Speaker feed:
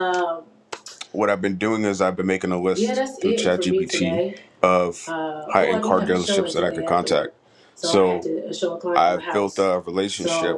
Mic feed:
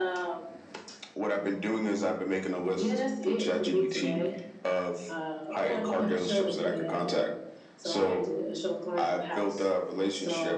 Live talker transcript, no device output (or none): none